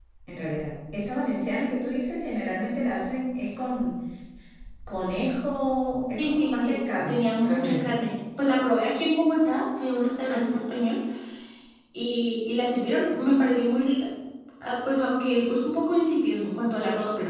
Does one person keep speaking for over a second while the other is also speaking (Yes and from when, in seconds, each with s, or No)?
Yes, from 6.2 s